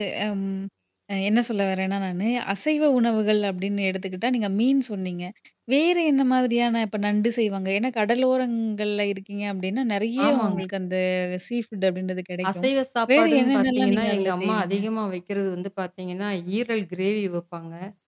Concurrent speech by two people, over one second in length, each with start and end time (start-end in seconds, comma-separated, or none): 13.2-14.8